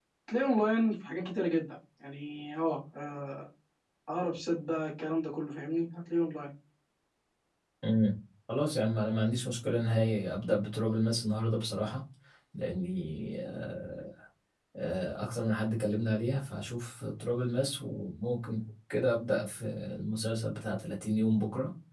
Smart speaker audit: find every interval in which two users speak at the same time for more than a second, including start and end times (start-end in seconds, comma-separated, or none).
none